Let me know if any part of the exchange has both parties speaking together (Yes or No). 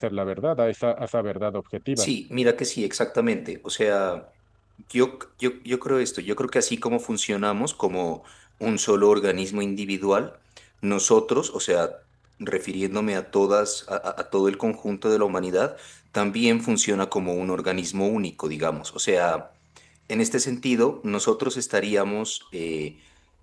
No